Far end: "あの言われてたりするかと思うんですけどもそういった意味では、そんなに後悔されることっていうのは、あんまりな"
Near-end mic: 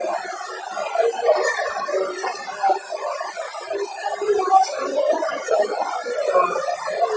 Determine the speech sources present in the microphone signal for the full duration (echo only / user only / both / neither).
echo only